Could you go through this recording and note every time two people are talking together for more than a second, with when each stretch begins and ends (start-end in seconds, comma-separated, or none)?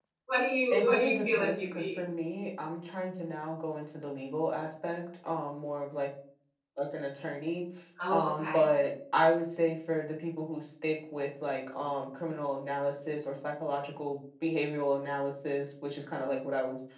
0.7-2.0